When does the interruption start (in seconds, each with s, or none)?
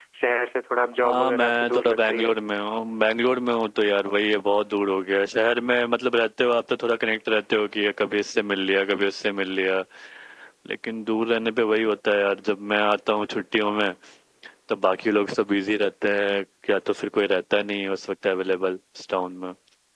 1.0 s